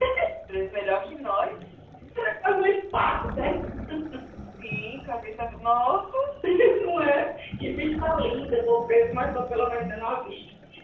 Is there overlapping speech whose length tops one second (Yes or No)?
No